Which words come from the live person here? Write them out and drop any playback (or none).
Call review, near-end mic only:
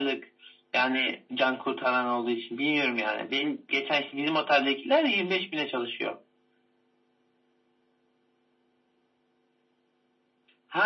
none